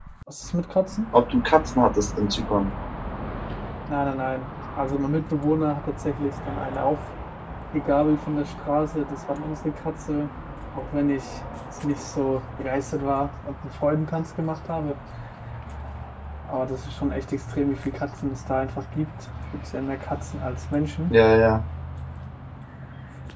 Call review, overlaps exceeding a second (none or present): none